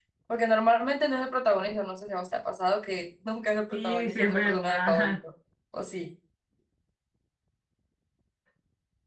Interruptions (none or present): present